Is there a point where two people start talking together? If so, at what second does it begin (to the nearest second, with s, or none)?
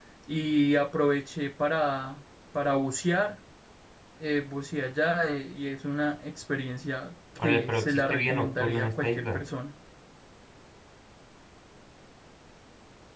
7 s